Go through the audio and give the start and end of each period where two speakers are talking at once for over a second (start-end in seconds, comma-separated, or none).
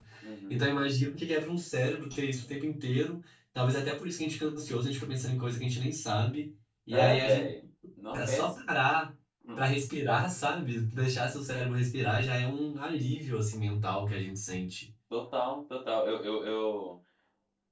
none